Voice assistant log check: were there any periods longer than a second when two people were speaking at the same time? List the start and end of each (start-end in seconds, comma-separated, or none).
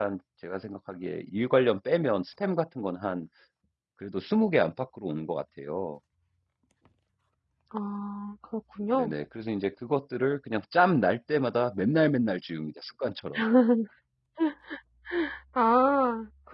none